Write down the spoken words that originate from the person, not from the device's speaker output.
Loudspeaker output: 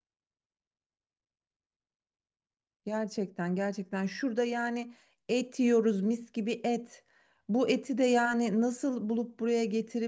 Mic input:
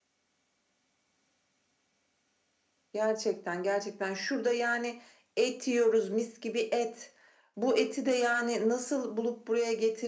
none

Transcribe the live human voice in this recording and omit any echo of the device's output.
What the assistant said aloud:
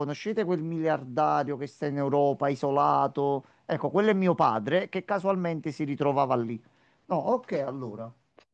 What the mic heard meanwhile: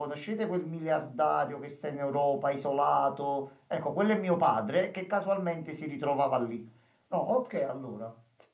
none

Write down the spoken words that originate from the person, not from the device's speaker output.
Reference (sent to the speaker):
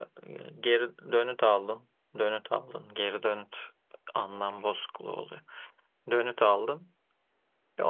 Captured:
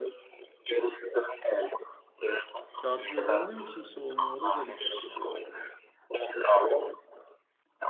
yardım eden de mi kimse olmuyor? O da garipmiş.

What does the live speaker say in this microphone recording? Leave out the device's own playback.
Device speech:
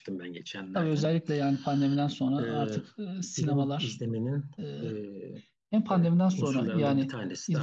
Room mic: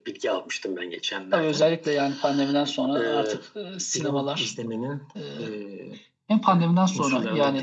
none

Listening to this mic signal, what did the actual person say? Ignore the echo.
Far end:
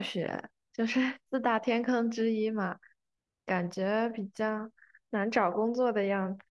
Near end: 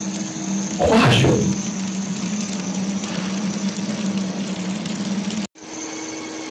化学。

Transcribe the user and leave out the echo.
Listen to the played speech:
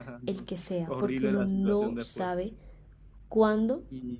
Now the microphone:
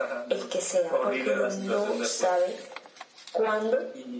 none

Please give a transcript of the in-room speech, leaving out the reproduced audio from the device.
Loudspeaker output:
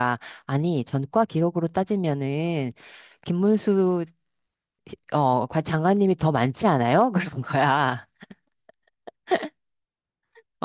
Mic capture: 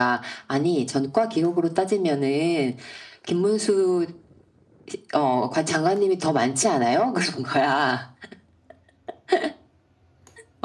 none

